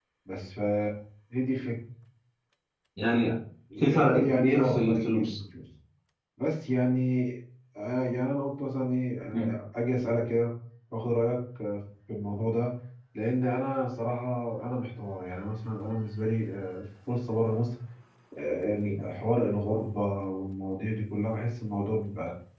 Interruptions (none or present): present